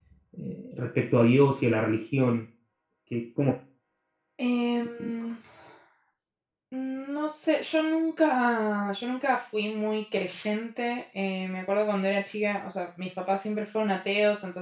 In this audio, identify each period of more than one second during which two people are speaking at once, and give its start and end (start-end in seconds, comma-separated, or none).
none